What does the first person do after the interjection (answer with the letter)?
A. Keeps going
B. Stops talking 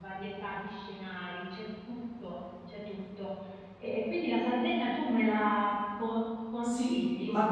B